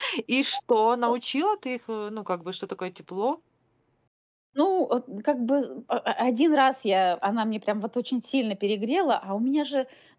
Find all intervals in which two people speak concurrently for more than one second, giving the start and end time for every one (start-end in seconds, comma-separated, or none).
none